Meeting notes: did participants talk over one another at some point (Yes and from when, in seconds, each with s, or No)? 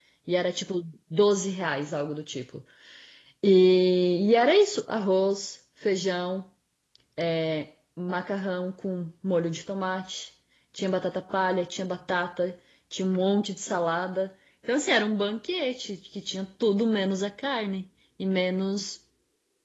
No